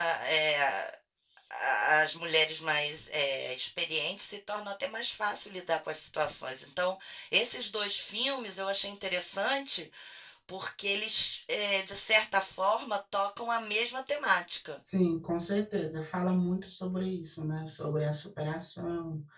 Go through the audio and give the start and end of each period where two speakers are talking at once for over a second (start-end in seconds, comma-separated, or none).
none